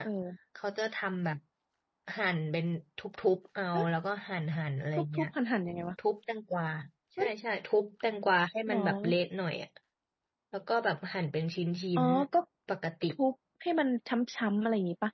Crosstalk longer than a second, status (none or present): none